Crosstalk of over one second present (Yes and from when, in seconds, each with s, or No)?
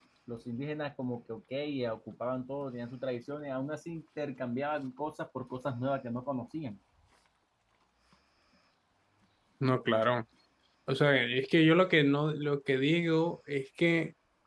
No